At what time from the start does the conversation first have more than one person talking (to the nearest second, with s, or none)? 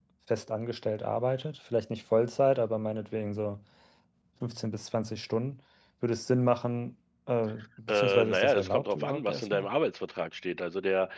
8 s